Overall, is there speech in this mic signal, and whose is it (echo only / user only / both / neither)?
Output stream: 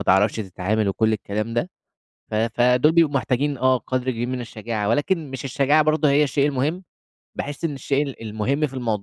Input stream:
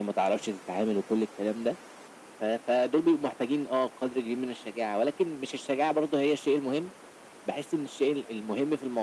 echo only